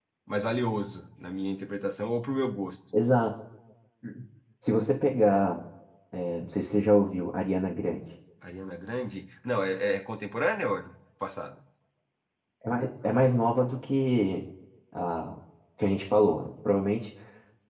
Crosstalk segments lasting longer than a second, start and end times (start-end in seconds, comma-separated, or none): none